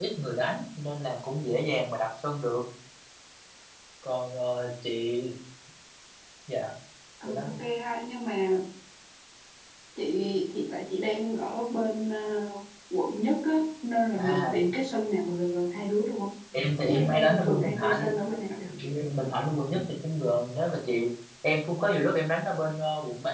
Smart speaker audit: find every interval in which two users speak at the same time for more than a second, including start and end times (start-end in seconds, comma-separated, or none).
16.9-18.2